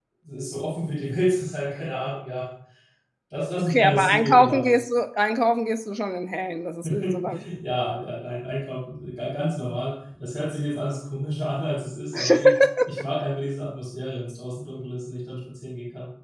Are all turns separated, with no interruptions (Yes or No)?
No